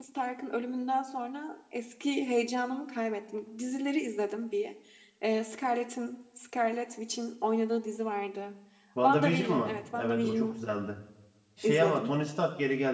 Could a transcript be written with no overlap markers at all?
No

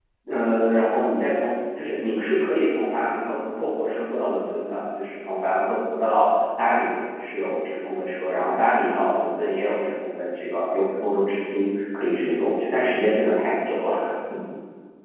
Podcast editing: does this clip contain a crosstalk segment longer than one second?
No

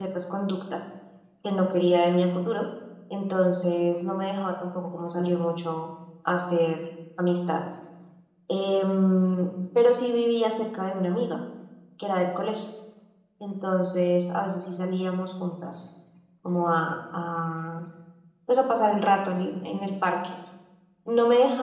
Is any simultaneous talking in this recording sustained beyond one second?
No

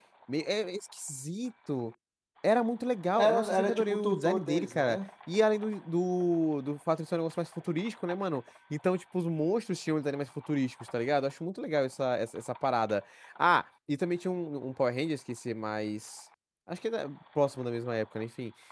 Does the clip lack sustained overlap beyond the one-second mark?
No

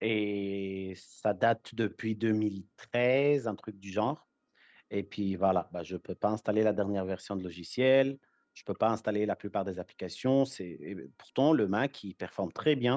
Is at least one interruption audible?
No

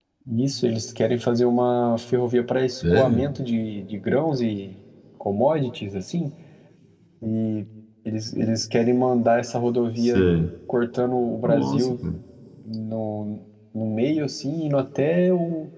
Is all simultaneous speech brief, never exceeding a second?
Yes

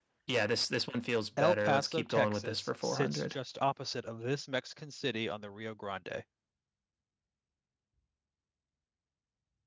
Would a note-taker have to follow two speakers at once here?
Yes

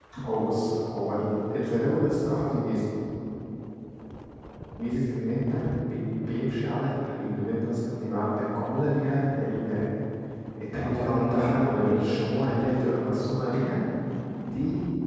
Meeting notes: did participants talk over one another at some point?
Yes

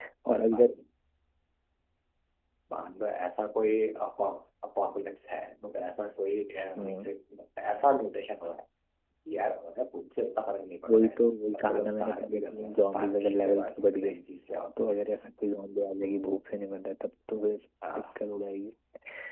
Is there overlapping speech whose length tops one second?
Yes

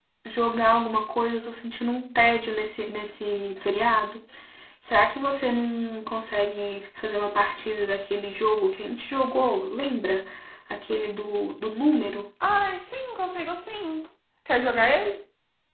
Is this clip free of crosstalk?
Yes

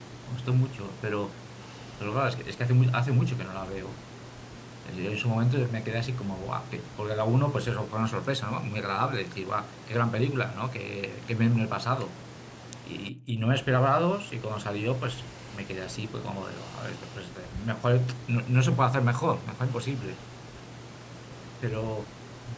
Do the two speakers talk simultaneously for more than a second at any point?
No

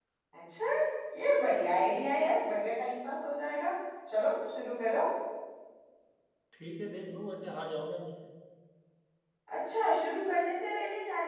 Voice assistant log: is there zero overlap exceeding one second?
Yes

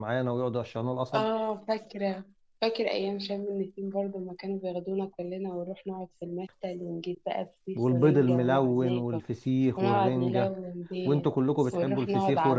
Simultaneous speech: Yes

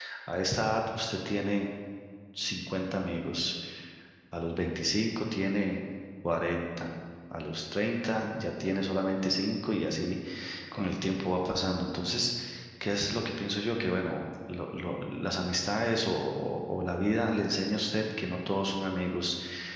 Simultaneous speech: No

